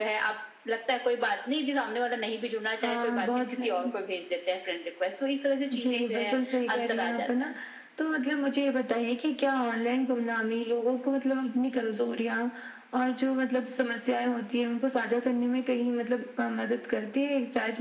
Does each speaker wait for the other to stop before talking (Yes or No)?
No